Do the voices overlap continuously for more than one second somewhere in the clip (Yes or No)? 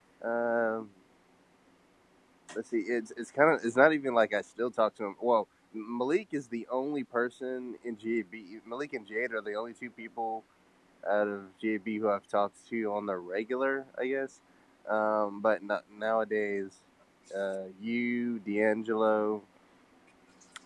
No